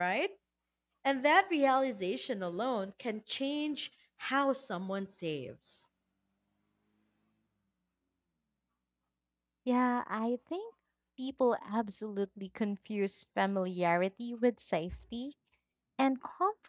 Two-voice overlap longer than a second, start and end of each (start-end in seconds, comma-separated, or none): none